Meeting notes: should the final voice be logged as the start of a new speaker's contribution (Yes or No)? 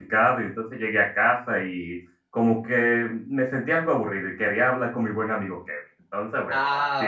Yes